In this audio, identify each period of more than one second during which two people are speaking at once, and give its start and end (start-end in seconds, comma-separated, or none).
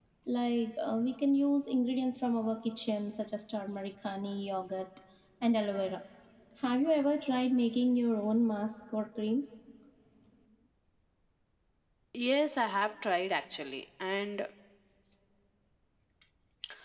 none